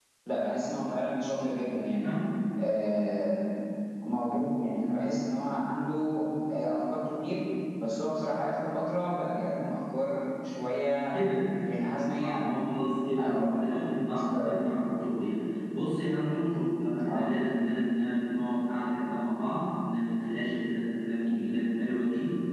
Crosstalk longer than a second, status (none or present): present